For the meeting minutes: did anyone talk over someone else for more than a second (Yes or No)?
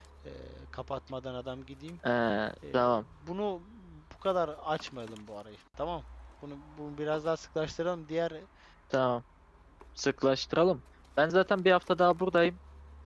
No